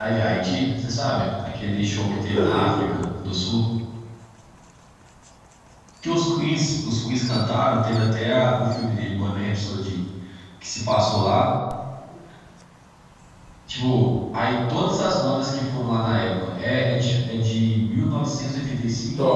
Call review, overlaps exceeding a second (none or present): present